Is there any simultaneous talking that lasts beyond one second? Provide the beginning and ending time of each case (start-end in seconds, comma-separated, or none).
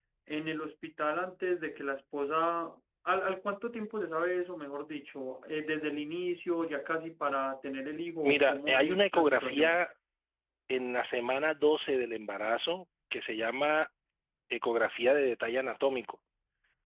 8.2-9.8